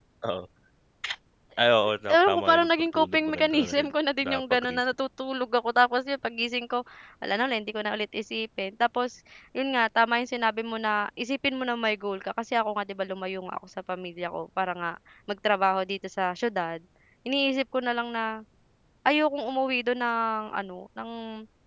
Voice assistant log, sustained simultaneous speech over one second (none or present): present